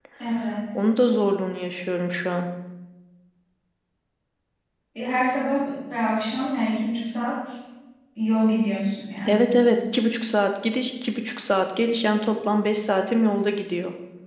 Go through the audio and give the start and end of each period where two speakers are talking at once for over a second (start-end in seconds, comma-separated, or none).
none